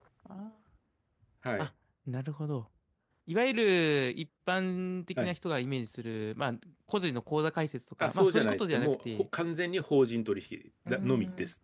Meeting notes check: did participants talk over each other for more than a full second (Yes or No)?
Yes